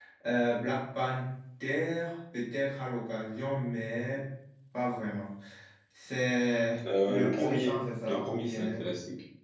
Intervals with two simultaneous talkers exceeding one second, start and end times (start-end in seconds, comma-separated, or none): 7.1-8.8